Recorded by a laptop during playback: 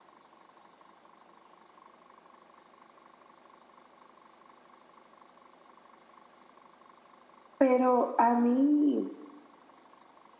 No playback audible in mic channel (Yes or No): Yes